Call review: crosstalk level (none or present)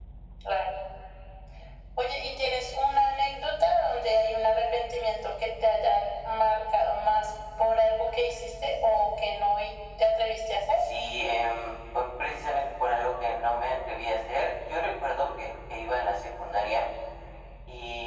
none